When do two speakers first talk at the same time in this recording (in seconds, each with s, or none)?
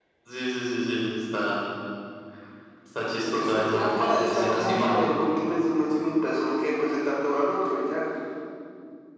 3.2 s